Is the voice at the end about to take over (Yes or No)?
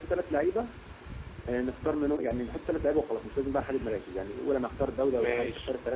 No